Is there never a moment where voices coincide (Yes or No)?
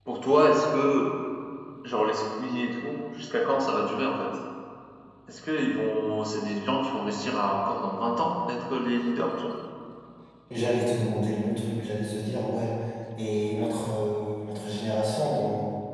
Yes